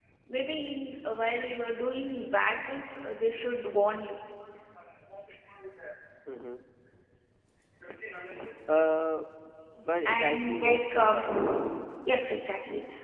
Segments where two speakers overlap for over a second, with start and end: 10.0-11.8

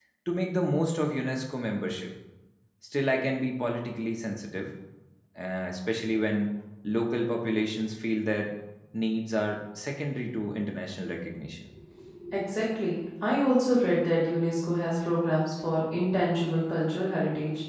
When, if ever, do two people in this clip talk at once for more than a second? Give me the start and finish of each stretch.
none

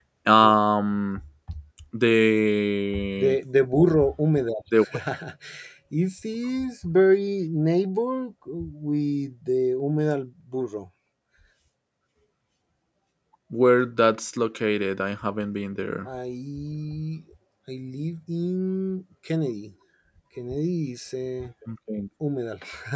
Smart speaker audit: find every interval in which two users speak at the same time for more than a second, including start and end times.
none

